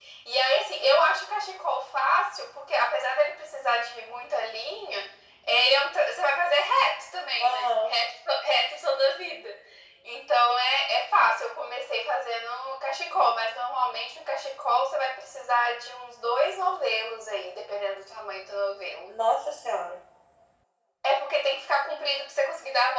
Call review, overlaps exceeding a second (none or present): none